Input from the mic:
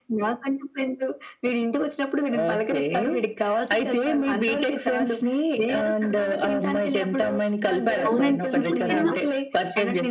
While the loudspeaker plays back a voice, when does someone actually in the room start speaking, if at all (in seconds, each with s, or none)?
8.0 s